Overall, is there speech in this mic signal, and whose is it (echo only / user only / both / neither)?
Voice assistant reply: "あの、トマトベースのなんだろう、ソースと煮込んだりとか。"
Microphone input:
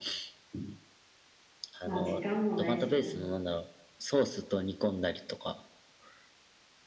both